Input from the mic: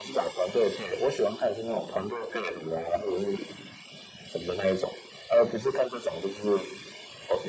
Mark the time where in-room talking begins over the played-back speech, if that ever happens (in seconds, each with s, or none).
none